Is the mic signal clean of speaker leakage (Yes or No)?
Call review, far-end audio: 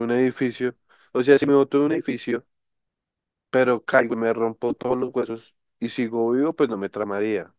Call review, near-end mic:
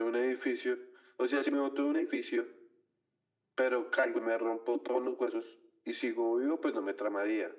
No